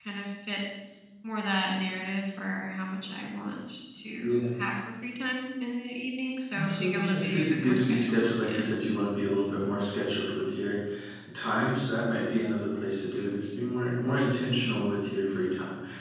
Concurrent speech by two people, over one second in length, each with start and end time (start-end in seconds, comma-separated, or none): 6.6-8.7